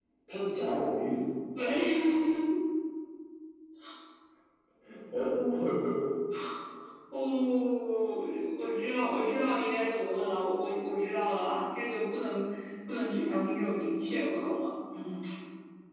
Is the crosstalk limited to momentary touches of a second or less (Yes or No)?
Yes